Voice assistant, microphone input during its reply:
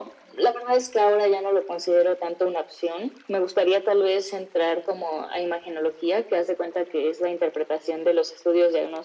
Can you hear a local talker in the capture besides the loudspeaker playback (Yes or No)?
No